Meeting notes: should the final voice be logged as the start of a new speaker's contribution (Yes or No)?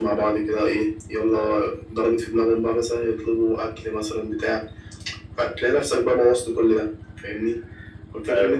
No